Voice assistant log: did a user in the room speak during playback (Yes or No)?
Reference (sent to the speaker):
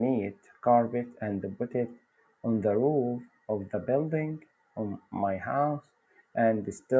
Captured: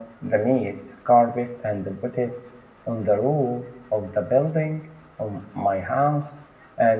No